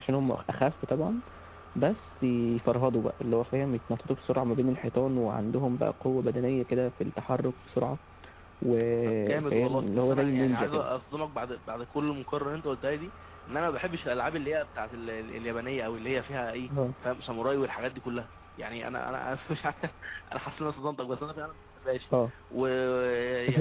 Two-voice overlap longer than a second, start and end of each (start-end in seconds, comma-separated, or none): 9.2-10.8